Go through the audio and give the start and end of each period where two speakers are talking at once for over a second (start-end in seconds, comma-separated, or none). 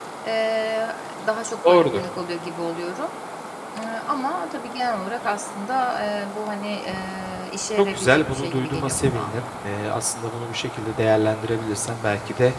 7.8-9.3